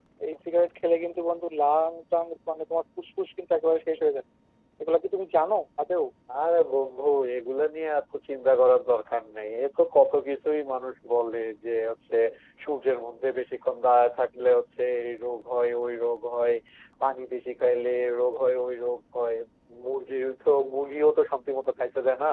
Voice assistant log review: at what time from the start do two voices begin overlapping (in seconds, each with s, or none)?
none